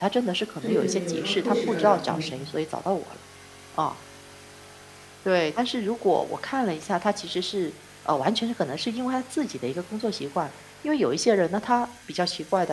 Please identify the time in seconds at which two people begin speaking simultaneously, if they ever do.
1 s

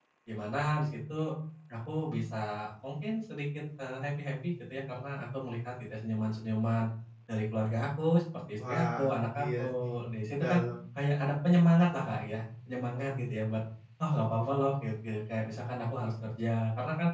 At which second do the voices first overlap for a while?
9 s

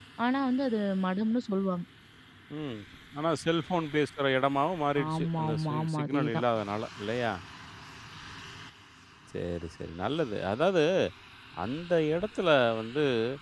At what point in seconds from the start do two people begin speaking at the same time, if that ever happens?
5 s

